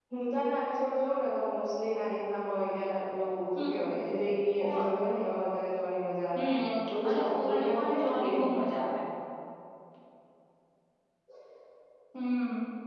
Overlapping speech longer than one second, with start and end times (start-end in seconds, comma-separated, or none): 7.1-8.5